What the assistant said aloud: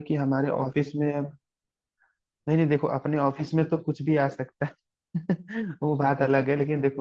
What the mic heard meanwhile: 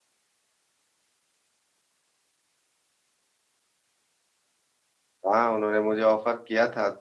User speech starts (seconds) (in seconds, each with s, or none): 5.3 s